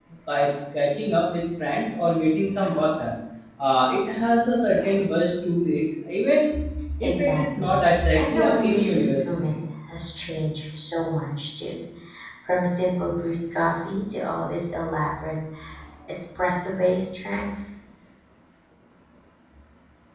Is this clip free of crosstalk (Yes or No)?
No